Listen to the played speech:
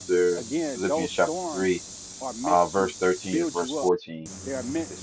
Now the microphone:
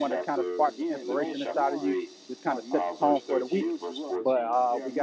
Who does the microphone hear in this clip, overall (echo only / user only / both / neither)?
both